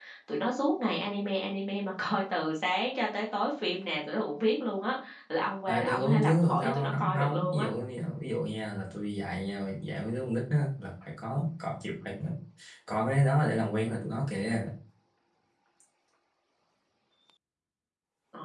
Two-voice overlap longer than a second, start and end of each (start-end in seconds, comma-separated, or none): 5.7-7.7